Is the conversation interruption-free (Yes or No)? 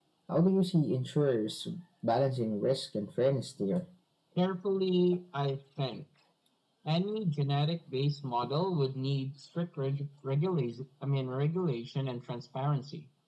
Yes